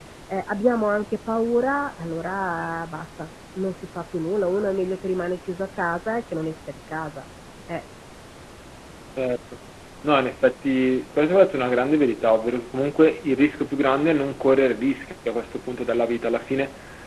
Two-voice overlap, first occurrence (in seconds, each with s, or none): none